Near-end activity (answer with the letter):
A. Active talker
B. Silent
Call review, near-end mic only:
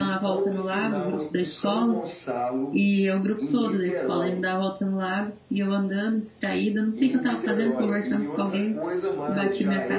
A